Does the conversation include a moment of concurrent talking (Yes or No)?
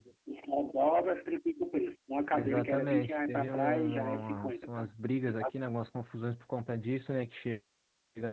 Yes